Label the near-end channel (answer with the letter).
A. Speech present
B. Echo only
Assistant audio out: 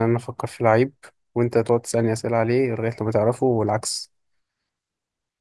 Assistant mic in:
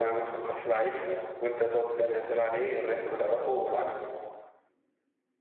B